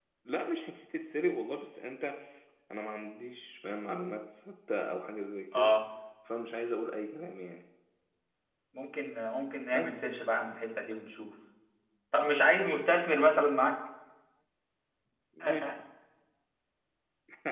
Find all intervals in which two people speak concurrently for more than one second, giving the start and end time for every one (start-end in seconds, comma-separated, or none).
none